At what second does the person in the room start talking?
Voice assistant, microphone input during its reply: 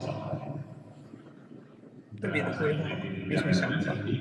2 s

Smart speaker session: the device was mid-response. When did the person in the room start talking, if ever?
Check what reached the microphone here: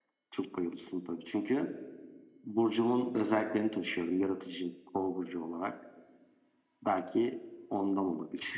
none

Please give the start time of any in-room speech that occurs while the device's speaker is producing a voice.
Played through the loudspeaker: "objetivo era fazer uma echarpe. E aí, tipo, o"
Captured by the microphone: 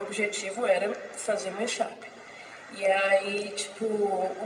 none

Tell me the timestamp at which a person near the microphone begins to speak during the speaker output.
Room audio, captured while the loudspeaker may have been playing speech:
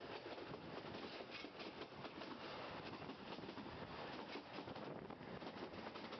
none

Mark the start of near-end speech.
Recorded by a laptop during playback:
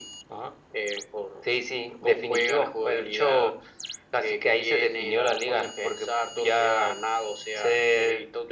none

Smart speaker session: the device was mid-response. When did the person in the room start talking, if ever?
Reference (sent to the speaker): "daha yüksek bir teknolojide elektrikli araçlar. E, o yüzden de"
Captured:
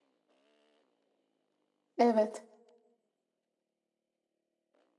2 s

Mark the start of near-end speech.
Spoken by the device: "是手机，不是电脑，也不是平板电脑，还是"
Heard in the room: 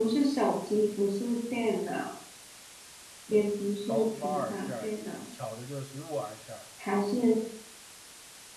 4 s

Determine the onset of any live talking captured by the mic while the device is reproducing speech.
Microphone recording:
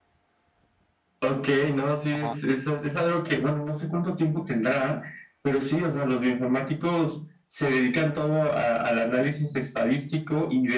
2 s

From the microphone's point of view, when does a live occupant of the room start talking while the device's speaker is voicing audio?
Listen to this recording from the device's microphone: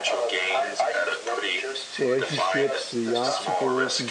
2 s

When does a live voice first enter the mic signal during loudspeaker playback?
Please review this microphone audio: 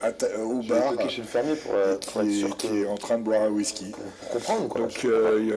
none

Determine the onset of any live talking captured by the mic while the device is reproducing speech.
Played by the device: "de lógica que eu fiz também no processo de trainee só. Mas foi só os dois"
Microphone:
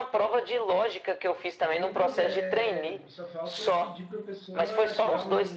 2 s

